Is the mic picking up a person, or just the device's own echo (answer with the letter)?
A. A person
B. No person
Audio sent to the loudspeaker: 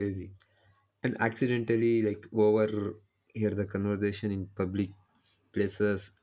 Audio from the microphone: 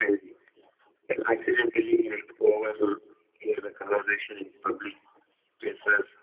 B